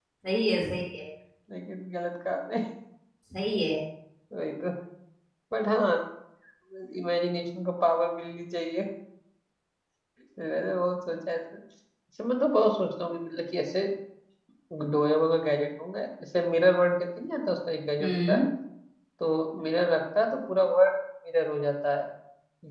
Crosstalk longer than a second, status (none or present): none